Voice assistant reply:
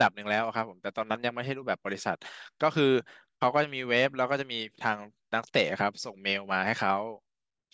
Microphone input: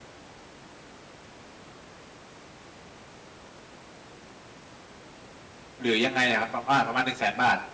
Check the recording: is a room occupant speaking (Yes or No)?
Yes